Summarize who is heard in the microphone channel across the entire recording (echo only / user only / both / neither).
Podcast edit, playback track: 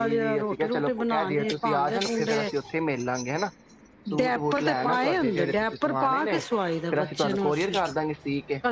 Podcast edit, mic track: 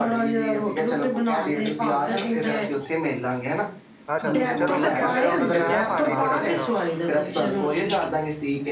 both